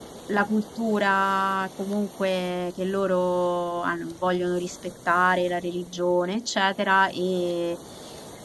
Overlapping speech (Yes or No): No